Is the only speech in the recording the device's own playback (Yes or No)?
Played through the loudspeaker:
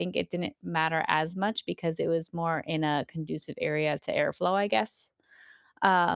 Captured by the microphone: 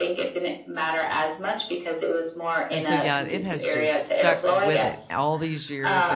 No